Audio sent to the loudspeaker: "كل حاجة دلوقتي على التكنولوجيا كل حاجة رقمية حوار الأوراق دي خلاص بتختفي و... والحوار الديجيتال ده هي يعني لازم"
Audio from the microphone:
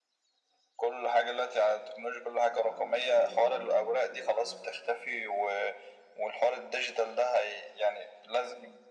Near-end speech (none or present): present